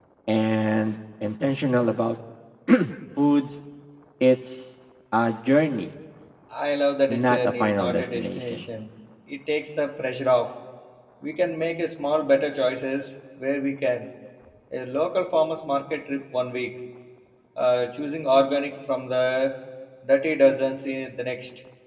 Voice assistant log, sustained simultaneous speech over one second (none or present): present